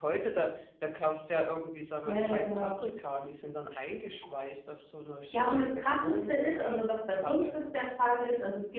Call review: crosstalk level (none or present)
present